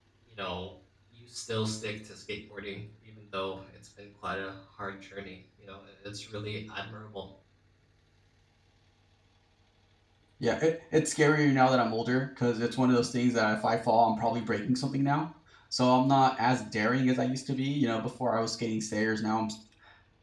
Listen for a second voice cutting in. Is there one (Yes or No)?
No